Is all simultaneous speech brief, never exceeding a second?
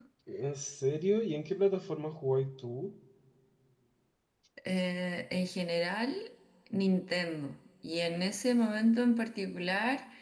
Yes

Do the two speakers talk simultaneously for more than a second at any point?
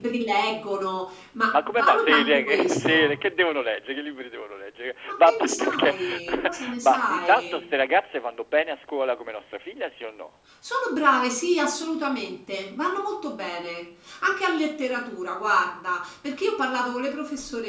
Yes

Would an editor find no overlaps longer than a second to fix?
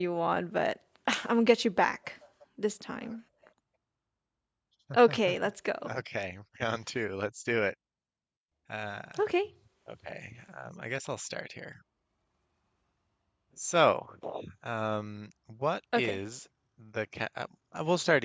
Yes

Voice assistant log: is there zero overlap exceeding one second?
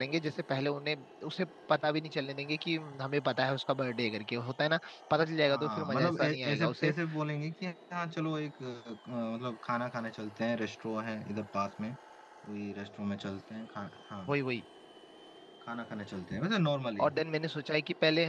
No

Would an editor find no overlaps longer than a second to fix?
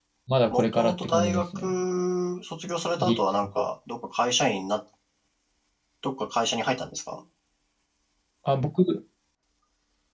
No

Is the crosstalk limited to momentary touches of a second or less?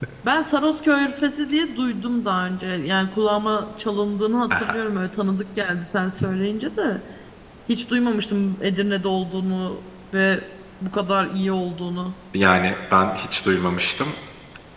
Yes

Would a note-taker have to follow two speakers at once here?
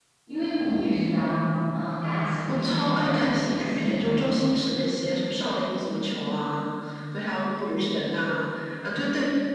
Yes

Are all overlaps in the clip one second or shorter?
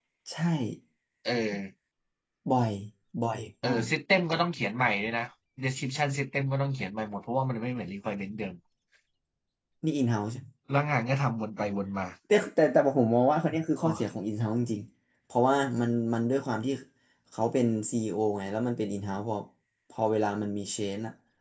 Yes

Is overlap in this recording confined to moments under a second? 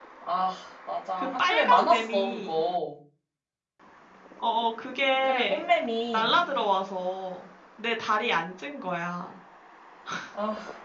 No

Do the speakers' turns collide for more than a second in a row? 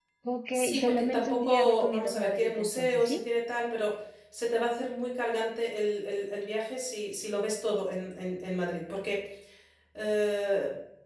Yes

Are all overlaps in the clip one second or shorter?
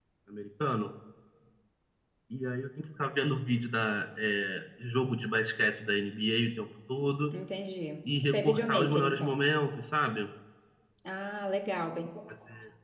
No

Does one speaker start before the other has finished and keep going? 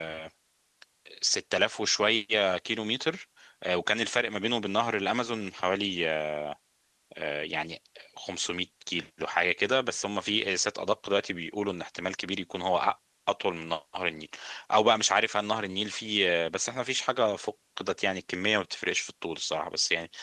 No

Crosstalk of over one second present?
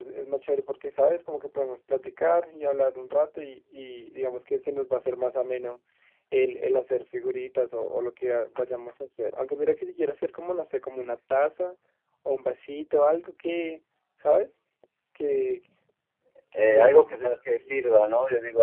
No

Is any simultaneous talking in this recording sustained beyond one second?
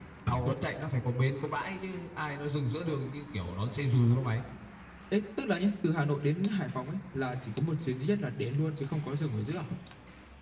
No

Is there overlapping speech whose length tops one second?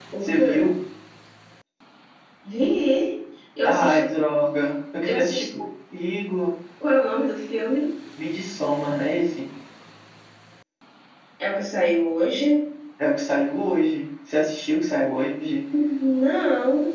No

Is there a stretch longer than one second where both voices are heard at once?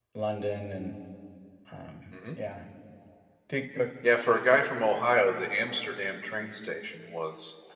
No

